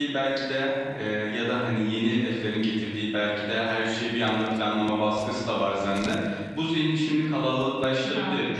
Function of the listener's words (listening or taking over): listening